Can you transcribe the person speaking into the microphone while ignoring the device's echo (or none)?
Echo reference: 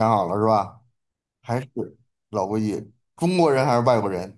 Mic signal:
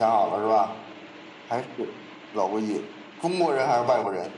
none